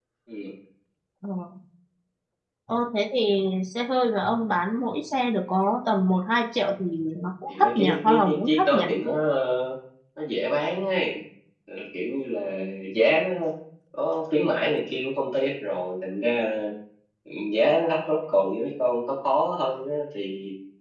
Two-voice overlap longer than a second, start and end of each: 7.5-8.8

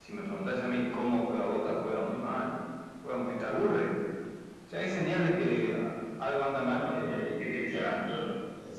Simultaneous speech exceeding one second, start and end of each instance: none

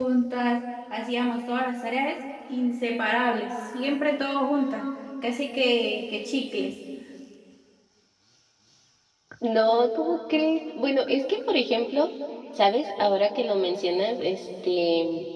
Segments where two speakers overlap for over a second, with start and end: none

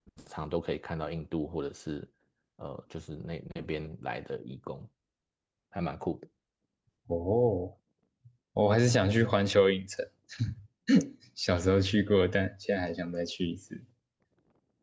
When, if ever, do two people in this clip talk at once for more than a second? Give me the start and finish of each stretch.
none

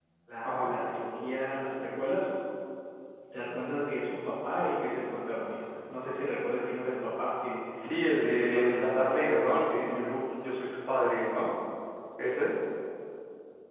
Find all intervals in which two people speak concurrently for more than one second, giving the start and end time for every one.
8.2-10.2

